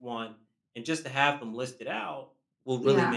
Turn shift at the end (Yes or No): No